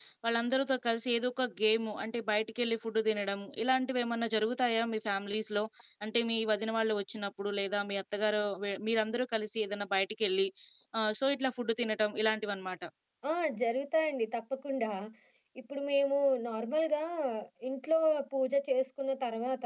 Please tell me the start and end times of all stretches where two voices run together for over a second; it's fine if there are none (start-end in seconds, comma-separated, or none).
none